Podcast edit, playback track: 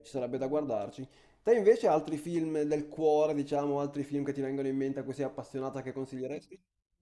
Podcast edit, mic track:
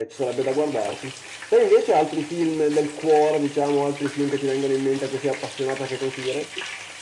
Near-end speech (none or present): none